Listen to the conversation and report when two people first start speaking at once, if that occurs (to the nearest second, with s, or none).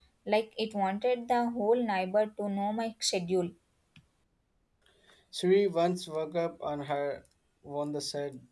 none